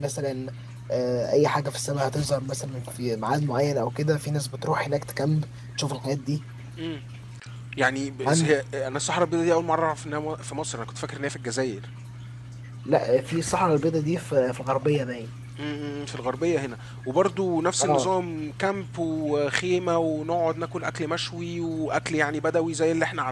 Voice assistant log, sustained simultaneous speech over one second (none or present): none